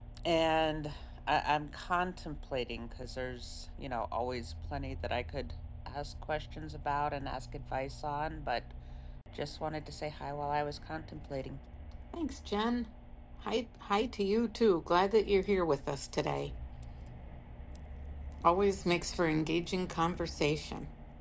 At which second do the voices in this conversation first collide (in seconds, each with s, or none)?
none